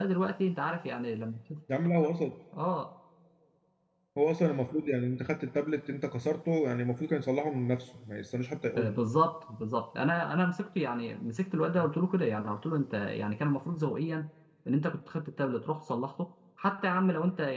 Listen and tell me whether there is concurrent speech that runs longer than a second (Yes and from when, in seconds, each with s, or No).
No